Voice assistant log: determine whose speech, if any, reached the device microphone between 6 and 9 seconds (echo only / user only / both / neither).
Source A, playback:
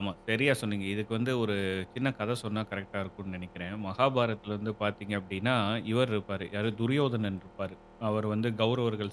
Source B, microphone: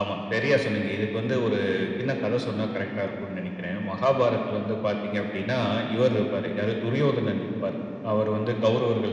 echo only